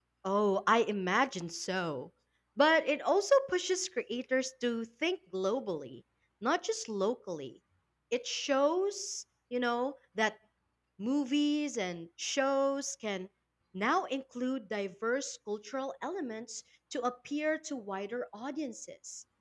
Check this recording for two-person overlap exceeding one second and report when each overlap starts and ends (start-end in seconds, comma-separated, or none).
none